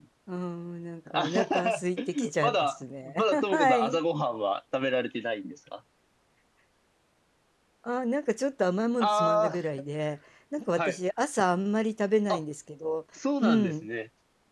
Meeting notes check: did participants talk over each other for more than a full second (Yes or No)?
Yes